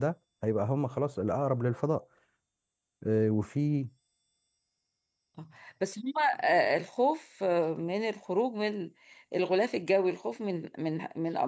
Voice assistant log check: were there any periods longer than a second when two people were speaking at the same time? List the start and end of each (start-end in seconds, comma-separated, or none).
none